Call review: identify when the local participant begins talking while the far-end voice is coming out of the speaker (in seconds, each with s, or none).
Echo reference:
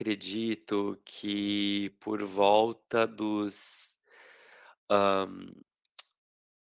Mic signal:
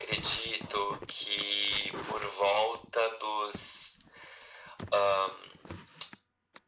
none